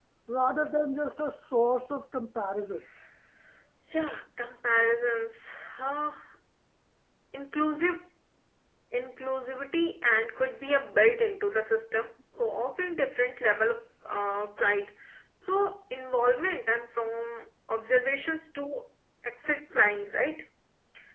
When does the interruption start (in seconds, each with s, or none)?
none